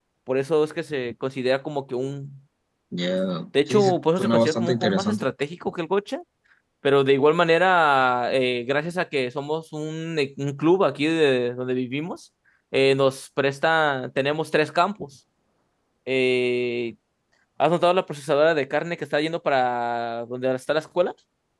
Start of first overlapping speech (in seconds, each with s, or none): 3.7 s